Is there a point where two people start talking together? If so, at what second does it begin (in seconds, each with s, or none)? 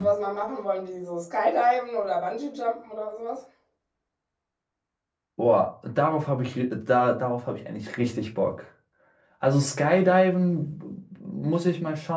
none